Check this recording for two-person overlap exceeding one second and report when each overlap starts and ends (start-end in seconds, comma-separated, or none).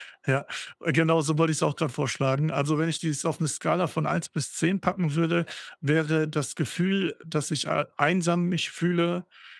none